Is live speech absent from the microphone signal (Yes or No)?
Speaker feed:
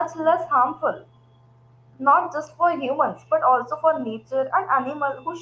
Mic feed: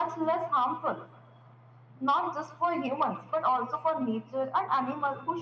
Yes